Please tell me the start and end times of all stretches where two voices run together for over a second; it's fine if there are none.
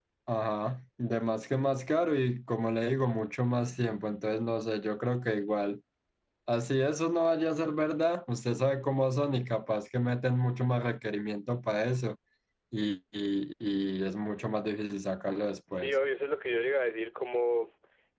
none

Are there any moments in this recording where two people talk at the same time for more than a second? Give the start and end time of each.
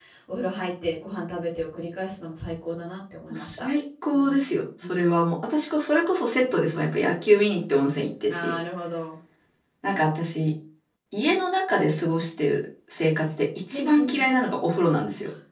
none

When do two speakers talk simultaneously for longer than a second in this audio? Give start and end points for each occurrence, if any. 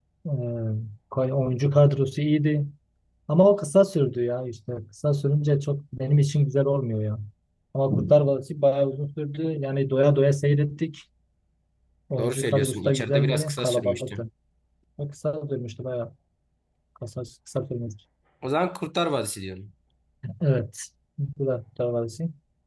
12.2-14.2

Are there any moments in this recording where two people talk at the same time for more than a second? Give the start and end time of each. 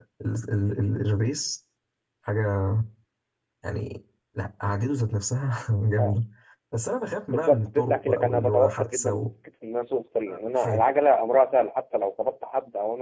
7.3-9.3

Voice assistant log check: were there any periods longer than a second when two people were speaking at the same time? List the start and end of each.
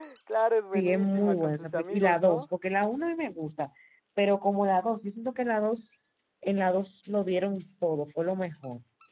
0.7-2.4

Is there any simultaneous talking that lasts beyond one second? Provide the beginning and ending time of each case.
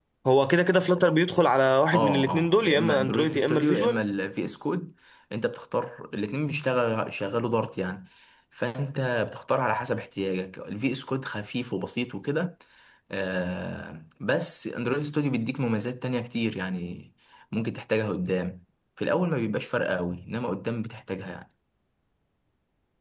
1.9-4.0

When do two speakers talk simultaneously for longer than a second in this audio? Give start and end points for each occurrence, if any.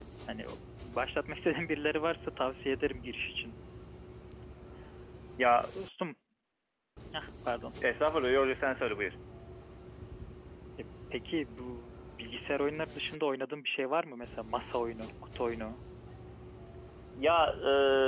none

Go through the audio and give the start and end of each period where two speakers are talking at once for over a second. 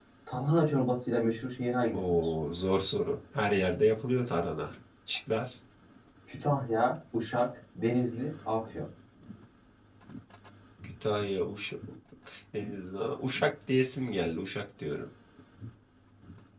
none

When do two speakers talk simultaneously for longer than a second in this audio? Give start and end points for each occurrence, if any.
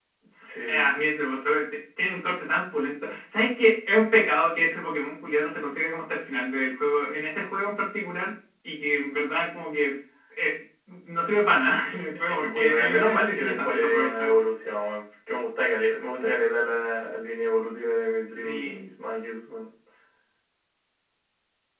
12.3-14.3

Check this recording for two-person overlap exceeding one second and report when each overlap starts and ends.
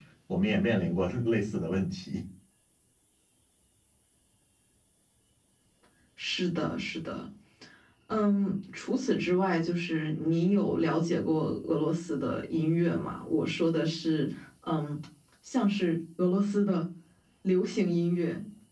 none

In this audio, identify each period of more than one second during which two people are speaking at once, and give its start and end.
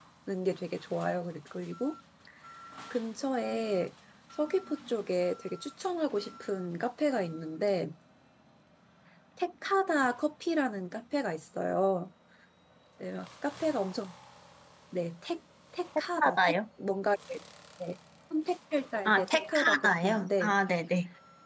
19.1-20.6

